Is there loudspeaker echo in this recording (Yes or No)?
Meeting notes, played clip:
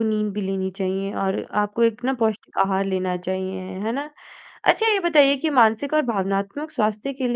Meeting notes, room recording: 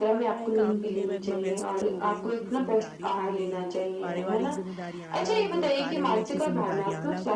Yes